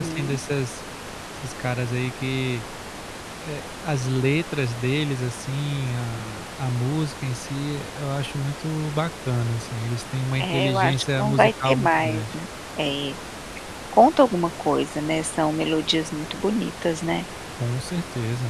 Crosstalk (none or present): present